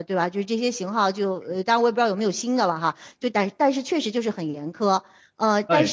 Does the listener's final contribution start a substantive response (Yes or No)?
No